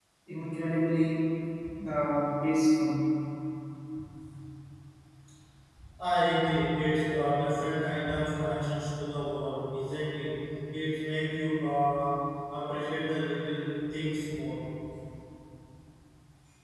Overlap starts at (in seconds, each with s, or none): none